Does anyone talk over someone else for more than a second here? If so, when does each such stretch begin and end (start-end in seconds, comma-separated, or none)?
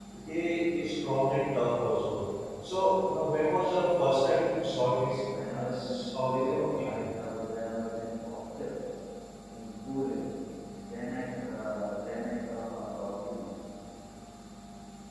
5.5-7.0